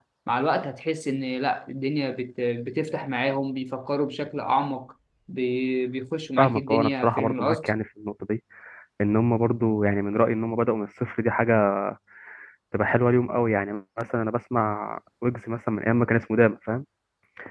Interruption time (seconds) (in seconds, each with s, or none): 6.4 s